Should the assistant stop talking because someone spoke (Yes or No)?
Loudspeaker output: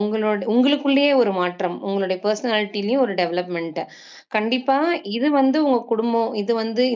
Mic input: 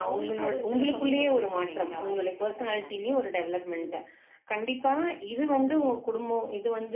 Yes